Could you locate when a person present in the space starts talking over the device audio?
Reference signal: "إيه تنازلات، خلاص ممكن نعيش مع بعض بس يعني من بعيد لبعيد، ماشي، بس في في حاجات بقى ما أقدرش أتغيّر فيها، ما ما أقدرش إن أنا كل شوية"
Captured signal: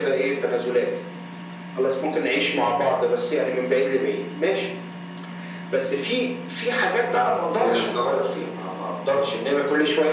7.5 s

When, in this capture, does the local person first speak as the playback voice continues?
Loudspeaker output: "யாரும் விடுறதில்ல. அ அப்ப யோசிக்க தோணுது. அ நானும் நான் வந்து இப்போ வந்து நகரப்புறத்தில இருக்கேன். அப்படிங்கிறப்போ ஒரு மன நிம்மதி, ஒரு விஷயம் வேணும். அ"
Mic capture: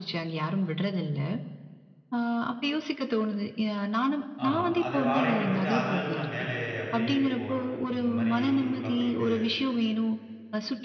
4.5 s

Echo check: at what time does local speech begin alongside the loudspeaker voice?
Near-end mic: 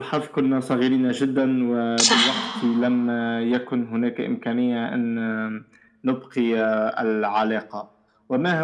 2.0 s

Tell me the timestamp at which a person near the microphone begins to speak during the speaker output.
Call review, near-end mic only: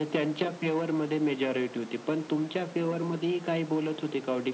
none

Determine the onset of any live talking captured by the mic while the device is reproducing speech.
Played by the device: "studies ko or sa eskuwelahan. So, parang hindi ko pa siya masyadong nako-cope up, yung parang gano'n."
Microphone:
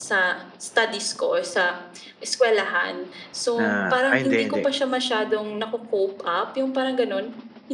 3.6 s

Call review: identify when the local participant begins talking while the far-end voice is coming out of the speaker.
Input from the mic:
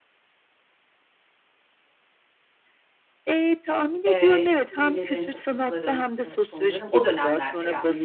4.1 s

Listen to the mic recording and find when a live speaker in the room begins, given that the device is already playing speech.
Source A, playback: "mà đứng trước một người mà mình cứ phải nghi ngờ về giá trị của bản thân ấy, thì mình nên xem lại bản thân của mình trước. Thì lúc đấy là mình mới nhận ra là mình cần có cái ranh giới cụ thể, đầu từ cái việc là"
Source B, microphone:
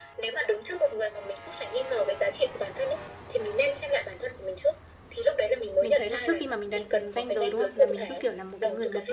5.8 s

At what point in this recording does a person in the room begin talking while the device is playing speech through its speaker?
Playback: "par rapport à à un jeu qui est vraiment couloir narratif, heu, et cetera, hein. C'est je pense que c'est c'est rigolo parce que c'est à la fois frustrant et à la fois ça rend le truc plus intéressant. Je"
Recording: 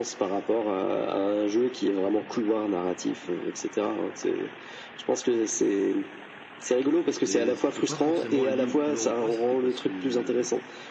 7.2 s

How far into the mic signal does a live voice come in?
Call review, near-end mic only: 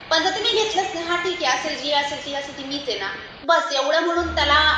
none

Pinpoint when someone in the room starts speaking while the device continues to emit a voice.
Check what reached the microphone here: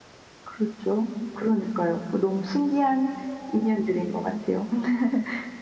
none

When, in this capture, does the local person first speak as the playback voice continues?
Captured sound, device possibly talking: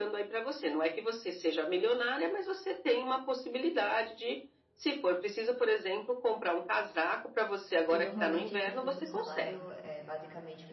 7.9 s

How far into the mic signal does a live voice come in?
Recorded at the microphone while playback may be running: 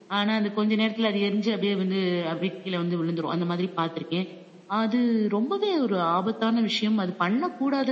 none

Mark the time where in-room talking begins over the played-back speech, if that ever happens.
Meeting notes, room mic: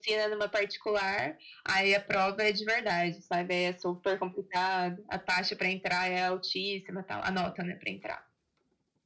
none

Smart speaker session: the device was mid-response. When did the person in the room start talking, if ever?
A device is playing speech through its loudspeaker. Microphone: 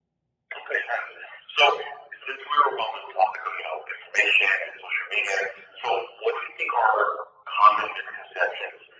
none

